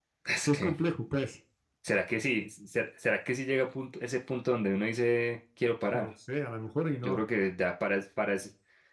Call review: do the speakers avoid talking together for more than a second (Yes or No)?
Yes